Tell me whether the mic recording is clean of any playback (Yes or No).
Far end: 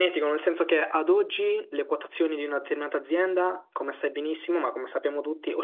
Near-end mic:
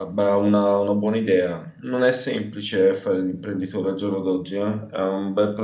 Yes